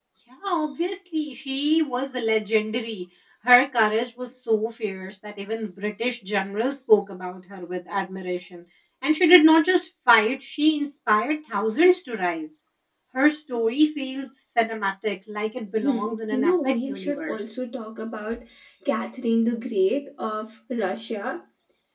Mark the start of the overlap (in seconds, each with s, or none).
15.8 s